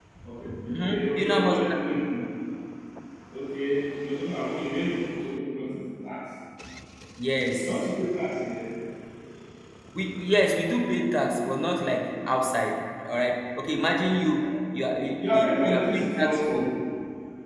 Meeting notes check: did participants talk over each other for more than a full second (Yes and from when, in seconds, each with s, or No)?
Yes, from 0.8 s